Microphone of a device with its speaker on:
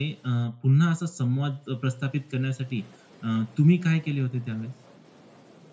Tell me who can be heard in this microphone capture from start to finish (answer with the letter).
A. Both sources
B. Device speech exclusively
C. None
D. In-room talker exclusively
D